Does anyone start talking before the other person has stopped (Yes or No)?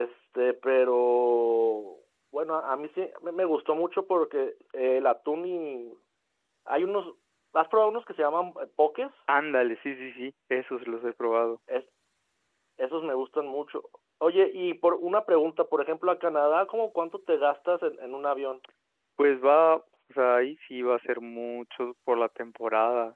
No